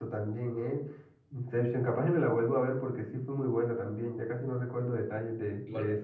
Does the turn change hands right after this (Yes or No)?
Yes